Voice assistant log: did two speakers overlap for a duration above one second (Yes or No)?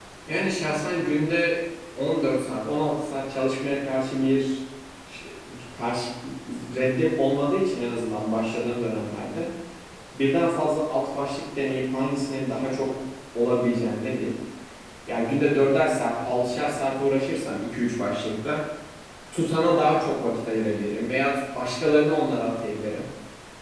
No